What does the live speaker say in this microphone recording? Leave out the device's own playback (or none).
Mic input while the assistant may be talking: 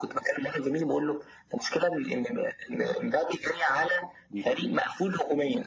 دي كانت